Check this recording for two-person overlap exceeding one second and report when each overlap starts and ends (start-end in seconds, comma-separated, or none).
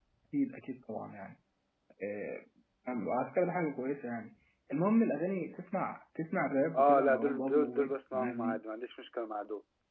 6.8-8.6